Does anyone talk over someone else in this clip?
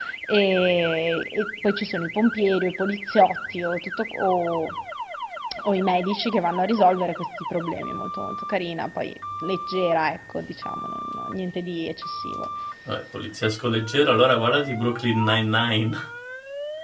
No

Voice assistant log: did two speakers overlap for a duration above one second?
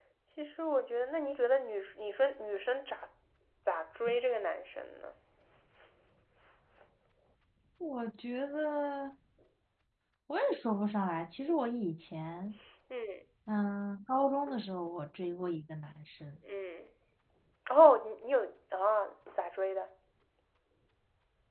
No

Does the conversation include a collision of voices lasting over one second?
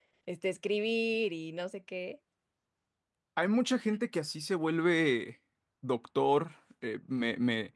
No

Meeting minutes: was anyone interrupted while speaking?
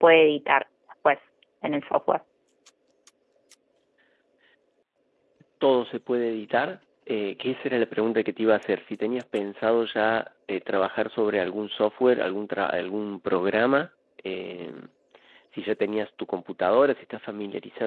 No

